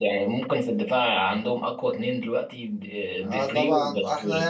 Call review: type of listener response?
taking over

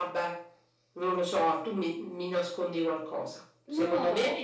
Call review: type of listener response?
listening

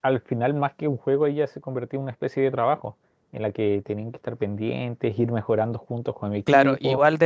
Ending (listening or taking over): taking over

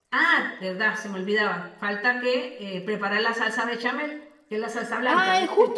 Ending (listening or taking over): taking over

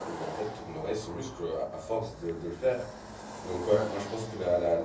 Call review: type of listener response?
listening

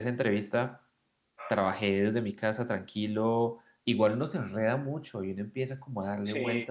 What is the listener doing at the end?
listening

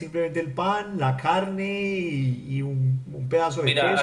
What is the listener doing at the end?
taking over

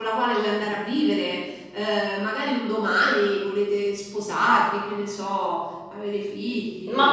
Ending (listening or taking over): taking over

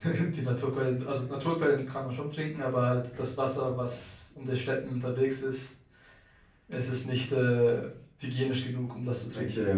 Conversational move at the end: listening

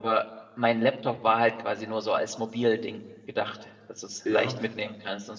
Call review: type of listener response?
listening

